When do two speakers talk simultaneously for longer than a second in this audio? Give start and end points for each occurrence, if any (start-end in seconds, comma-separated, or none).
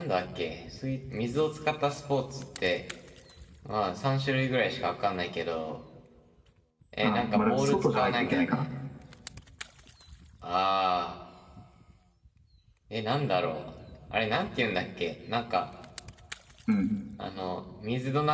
7.0-8.6